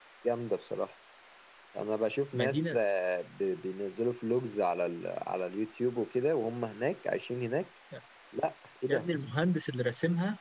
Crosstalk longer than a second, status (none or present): none